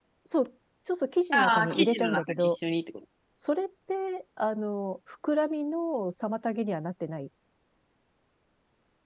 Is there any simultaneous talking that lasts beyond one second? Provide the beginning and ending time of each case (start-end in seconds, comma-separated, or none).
1.3-2.6